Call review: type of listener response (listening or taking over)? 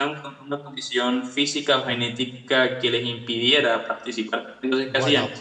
taking over